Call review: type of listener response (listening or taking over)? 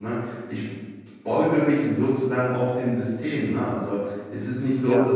listening